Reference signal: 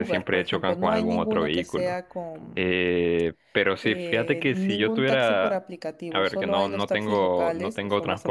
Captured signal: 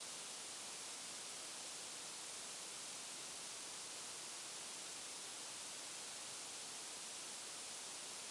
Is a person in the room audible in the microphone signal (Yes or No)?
No